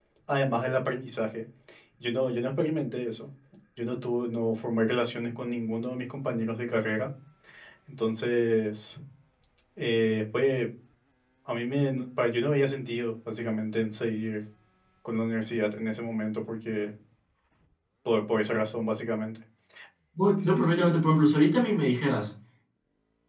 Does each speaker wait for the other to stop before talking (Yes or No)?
Yes